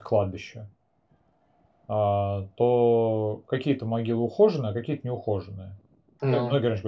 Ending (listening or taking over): listening